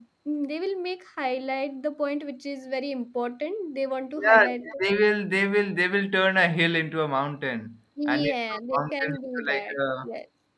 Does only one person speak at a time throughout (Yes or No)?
No